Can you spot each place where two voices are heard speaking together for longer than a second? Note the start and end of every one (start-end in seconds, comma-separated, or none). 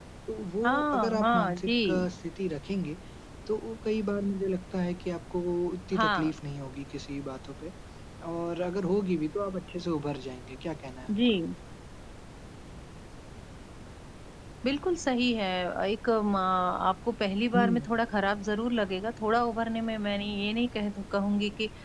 0.6-2.0